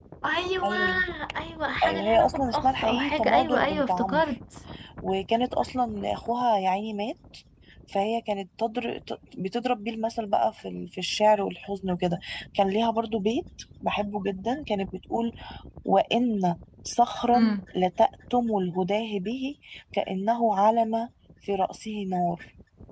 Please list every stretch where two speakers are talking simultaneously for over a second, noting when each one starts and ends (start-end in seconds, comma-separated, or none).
1.8-4.3